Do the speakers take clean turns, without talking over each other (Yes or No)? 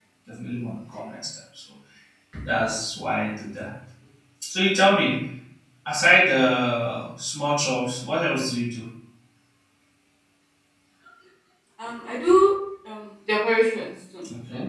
Yes